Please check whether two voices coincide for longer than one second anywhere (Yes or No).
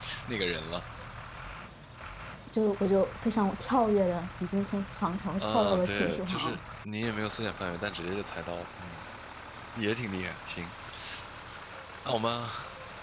Yes